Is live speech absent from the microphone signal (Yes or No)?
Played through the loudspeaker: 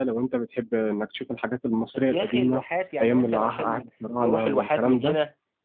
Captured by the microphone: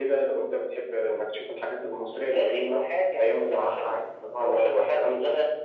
Yes